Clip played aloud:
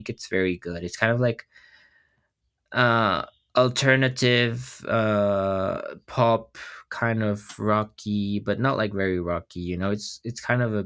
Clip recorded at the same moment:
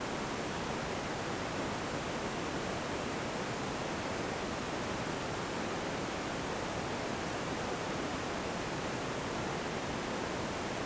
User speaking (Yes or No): No